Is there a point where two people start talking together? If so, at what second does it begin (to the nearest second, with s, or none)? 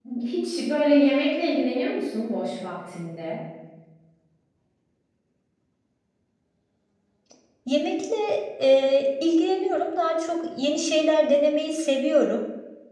none